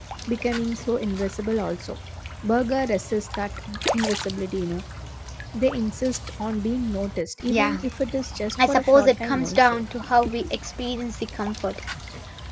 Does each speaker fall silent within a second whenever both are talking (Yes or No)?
No